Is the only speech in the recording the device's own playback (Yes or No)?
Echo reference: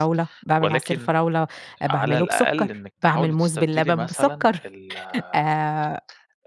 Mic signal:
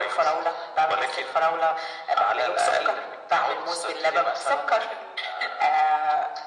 Yes